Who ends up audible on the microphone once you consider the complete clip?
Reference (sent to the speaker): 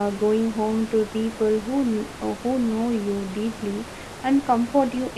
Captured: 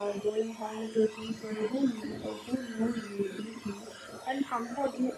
echo only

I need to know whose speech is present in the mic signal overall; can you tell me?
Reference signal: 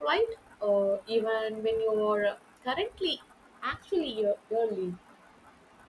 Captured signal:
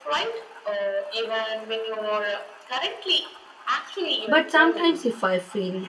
both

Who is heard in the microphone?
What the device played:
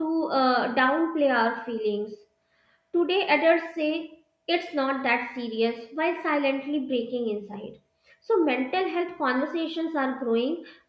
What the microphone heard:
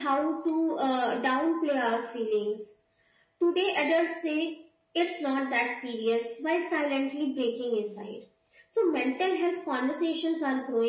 echo only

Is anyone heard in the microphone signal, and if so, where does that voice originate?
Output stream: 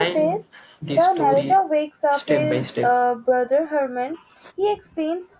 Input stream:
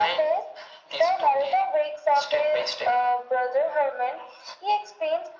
echo only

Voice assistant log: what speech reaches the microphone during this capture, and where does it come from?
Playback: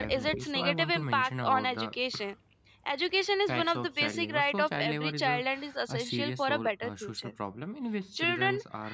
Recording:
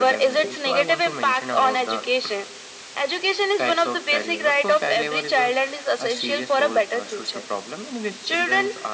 echo only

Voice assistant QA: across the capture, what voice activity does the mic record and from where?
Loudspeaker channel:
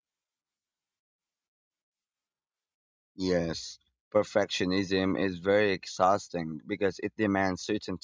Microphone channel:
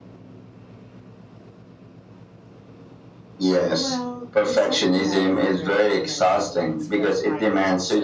both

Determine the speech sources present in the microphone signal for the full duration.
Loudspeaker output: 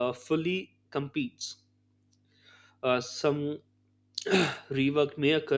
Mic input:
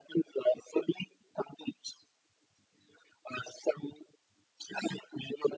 echo only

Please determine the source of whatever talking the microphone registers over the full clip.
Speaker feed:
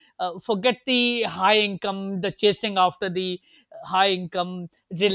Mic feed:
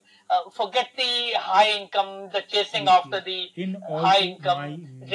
both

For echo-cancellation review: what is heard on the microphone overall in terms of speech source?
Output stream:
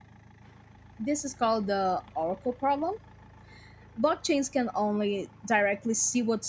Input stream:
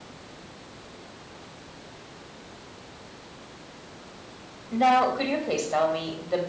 user only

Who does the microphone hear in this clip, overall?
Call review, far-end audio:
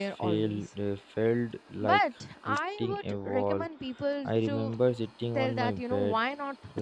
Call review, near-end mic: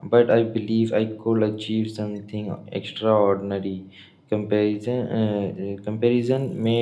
user only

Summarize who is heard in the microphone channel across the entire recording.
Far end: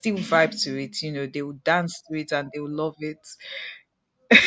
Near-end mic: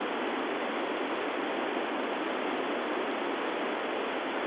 neither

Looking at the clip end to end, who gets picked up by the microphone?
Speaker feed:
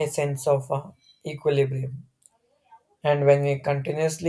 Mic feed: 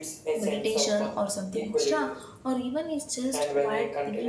both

